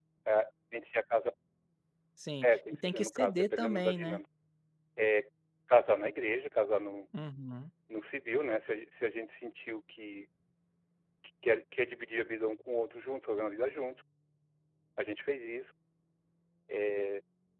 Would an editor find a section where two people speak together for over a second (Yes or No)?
Yes